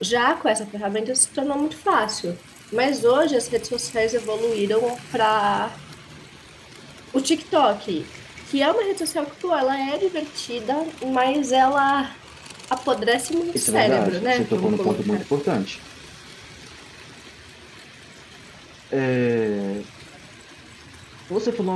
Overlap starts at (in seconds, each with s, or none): 13.6 s